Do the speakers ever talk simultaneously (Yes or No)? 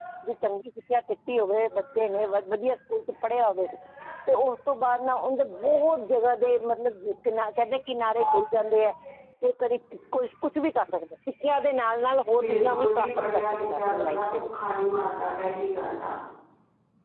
Yes